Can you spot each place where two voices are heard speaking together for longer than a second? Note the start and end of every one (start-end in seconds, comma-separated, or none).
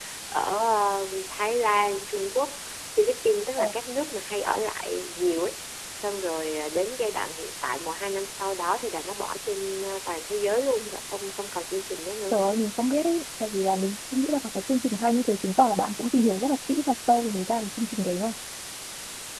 none